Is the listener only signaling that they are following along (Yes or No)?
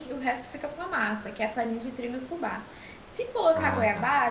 Yes